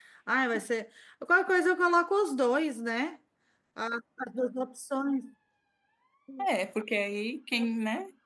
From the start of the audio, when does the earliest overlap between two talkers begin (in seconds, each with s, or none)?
none